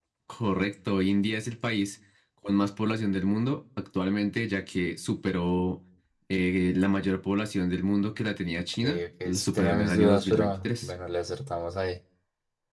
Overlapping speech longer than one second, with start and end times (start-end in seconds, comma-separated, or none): 8.8-10.9